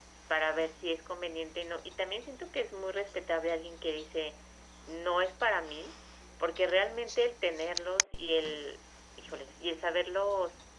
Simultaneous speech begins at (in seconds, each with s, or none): none